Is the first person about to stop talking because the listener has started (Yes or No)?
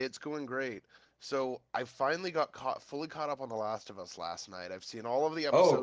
No